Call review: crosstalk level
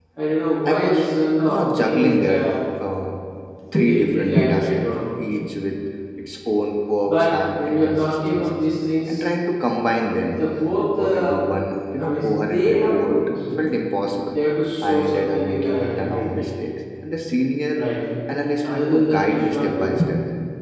present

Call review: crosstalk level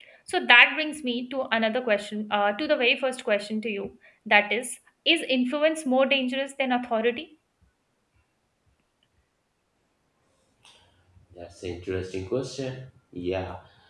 none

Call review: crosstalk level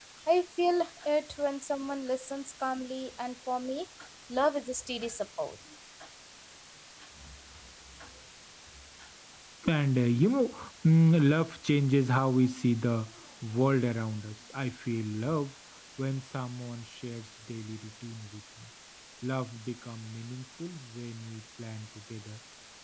none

